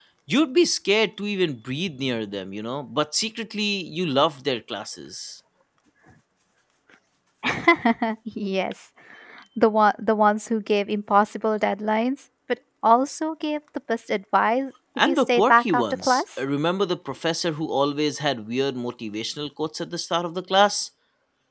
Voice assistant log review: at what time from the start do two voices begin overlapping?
15 s

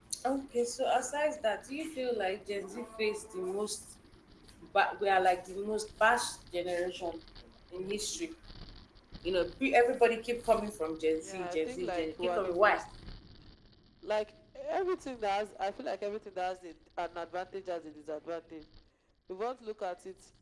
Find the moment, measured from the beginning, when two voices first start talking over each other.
11 s

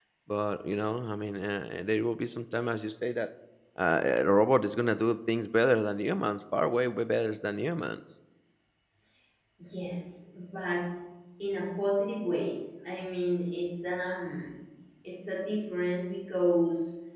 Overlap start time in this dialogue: none

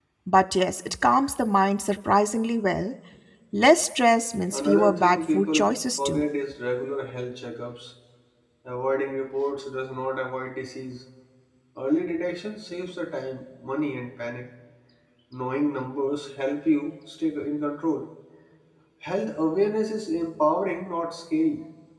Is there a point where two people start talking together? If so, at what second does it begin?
5 s

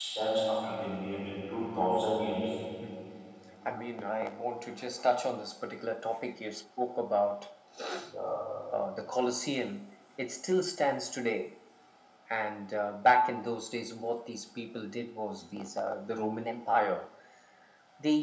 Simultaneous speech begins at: none

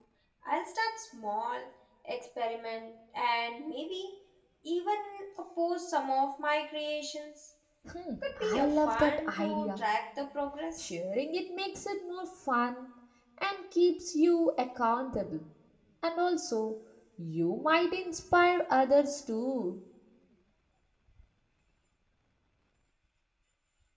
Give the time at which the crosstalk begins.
8 s

